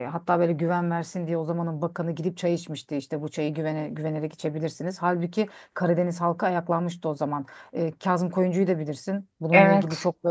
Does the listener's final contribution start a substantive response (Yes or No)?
No